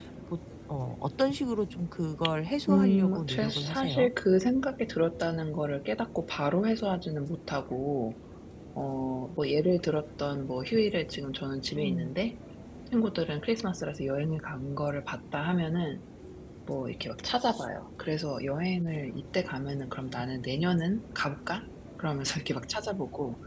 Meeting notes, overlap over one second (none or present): present